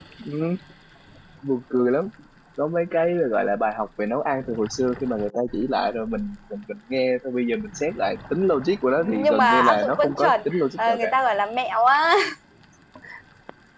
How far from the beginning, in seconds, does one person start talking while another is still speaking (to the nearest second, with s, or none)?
9 s